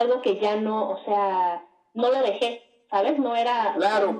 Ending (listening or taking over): taking over